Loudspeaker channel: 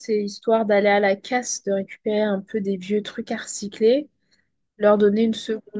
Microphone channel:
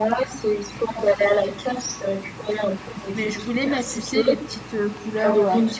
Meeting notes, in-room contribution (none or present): present